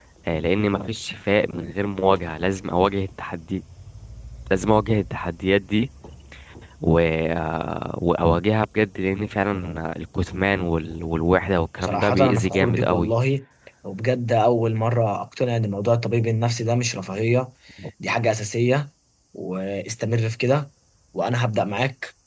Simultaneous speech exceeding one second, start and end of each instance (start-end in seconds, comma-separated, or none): 11.8-13.1